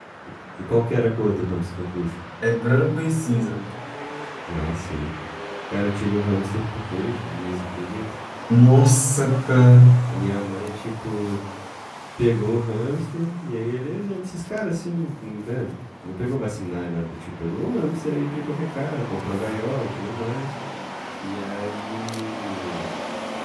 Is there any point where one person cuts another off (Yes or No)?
No